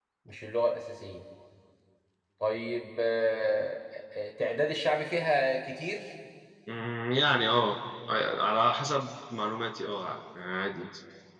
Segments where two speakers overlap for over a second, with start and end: none

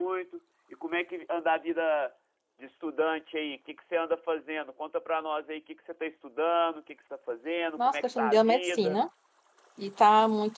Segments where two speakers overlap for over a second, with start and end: 7.8-9.0

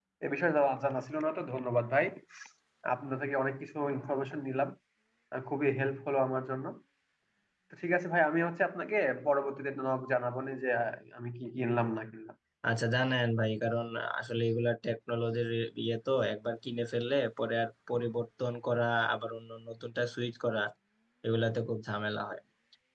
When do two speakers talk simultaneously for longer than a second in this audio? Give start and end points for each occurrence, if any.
none

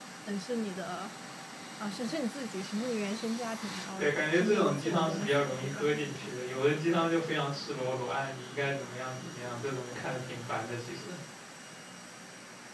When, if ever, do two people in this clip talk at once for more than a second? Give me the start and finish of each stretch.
4.0-6.4

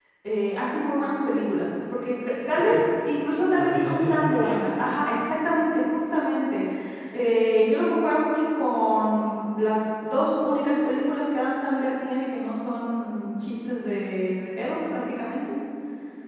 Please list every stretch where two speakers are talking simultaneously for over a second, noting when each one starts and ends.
3.6-4.8

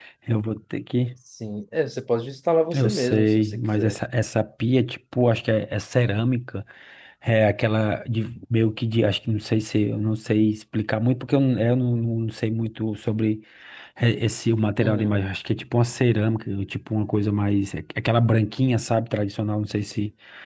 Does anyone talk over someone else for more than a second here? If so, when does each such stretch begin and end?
2.7-4.0

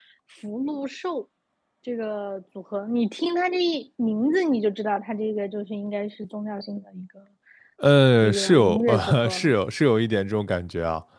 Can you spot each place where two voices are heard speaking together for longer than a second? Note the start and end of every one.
8.2-9.5

